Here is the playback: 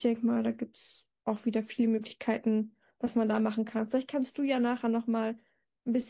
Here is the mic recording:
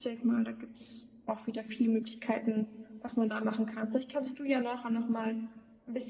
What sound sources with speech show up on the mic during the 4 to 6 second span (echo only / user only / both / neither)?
echo only